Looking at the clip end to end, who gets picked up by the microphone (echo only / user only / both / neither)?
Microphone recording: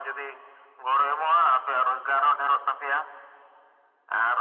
echo only